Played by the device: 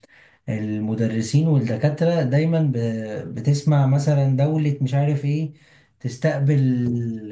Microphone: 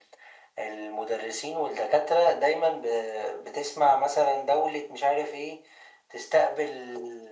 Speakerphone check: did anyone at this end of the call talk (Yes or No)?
No